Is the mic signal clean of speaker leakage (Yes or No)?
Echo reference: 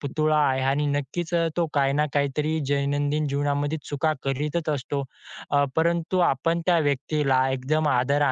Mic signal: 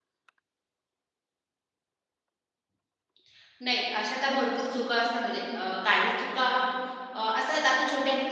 Yes